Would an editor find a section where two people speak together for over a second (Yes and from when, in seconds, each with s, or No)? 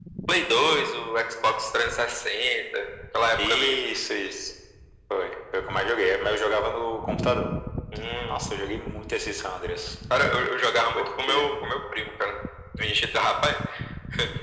No